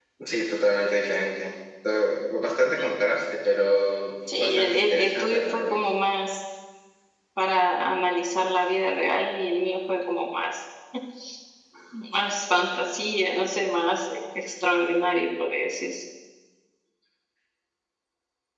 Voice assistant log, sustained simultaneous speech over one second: present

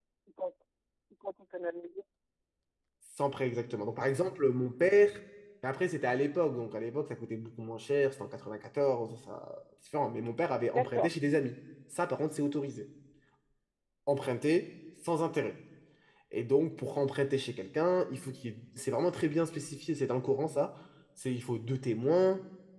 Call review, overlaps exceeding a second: none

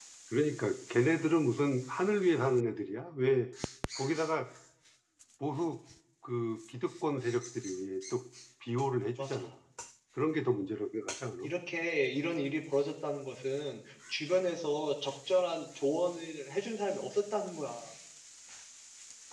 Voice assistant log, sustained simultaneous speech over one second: none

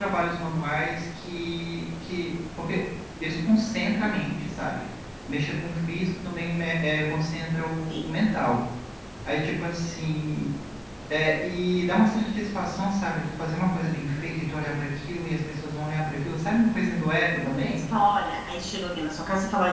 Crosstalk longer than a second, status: none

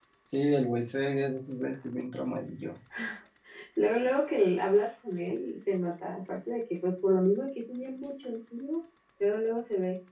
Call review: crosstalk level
none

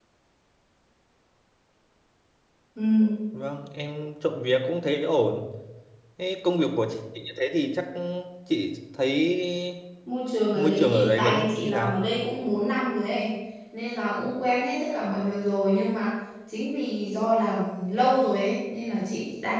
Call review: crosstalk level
present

